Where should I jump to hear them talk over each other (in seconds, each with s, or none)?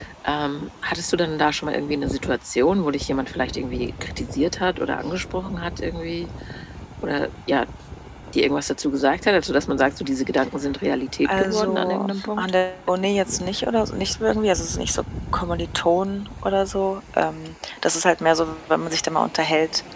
11.2 s